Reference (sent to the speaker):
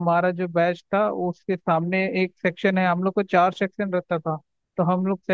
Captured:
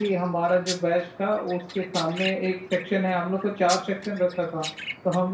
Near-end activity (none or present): none